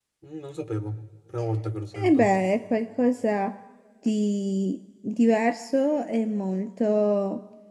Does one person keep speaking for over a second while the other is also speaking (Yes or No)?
No